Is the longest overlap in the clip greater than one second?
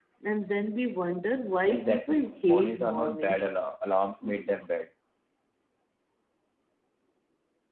Yes, from 1.7 s

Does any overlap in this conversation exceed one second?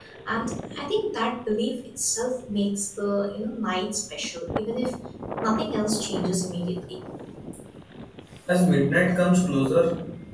No

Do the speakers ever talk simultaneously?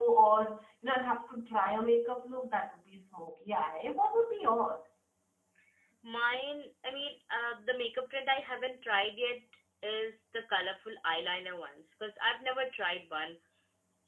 No

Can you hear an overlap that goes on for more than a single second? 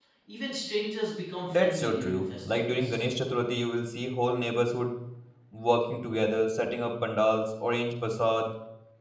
Yes, from 1.5 s

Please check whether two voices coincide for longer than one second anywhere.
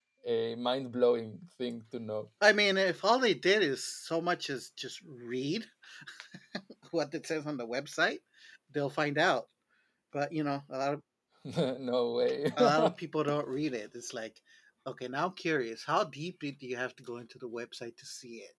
No

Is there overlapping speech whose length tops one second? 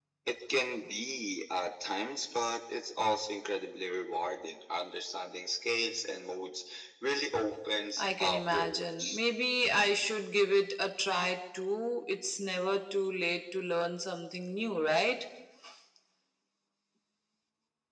Yes, from 8.0 s

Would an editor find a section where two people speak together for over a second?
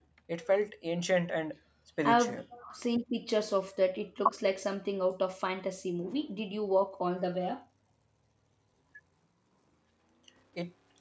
No

